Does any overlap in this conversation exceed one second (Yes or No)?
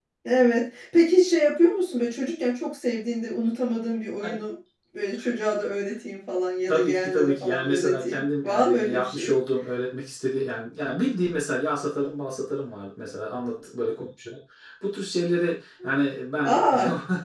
Yes